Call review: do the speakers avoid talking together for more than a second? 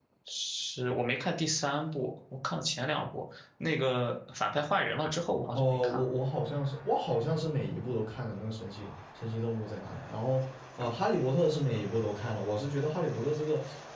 Yes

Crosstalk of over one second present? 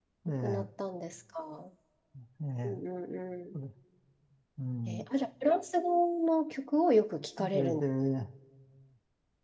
No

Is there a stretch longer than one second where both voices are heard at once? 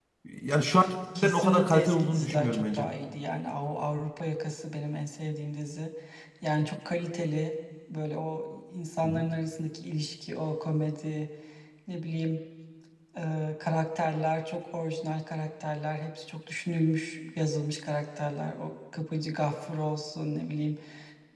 Yes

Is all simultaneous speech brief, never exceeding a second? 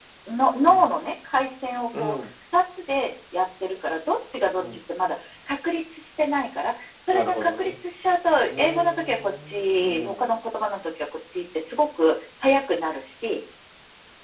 No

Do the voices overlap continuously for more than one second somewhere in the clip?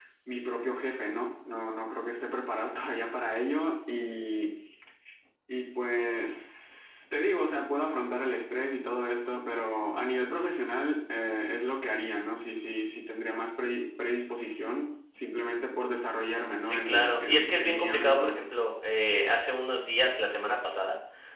Yes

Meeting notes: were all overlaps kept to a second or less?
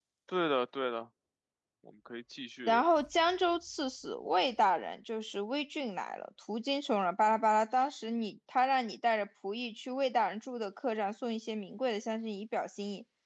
Yes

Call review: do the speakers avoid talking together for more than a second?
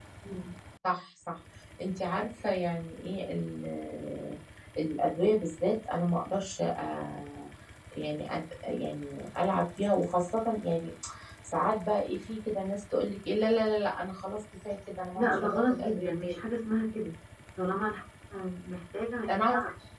No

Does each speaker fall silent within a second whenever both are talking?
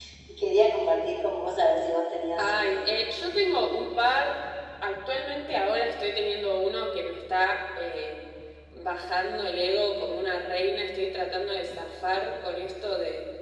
Yes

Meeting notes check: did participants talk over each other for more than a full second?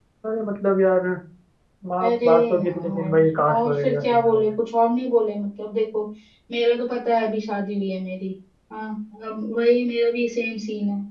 Yes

